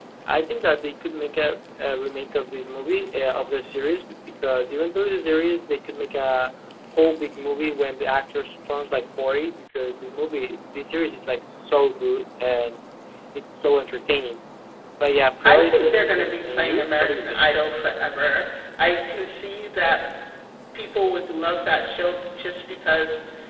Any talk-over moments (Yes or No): Yes